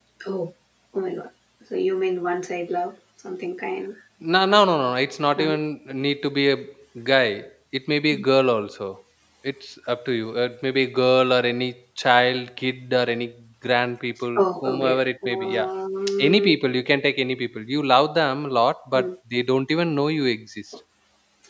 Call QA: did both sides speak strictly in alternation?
No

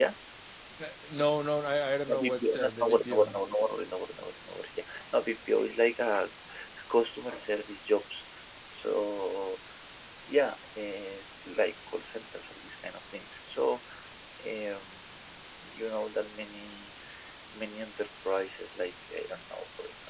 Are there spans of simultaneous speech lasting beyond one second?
Yes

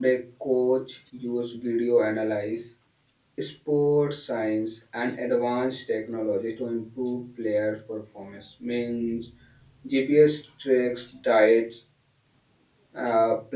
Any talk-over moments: No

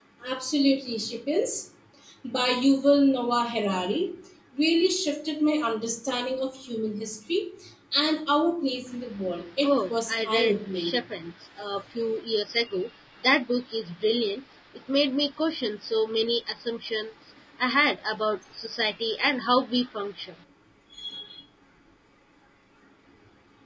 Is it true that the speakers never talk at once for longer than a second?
No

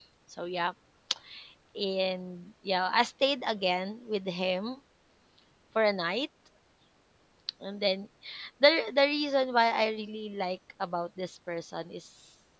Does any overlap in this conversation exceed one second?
No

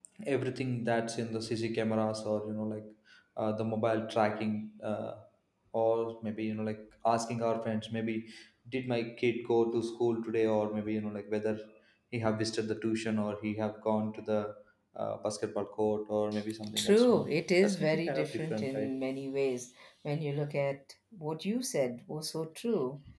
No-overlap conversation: No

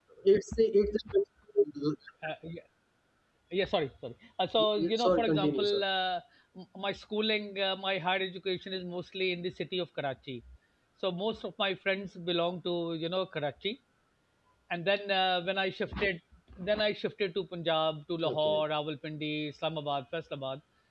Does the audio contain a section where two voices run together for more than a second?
Yes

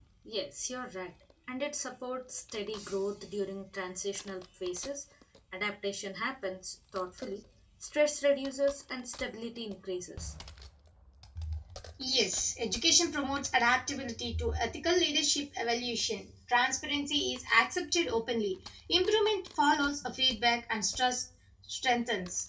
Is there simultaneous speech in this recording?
No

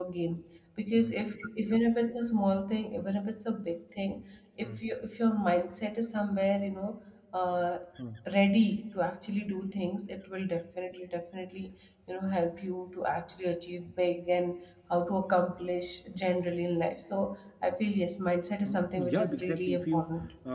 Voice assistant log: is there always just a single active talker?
No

